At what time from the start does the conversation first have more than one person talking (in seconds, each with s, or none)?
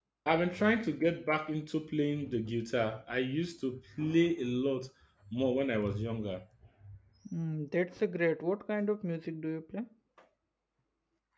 none